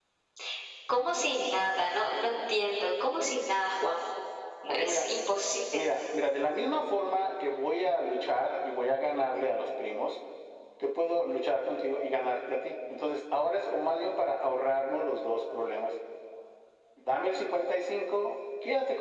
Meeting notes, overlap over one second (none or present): none